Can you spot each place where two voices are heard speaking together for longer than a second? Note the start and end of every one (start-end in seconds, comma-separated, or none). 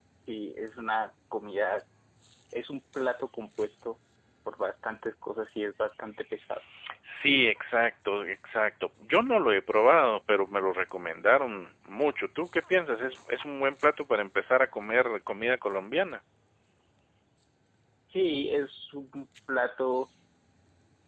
none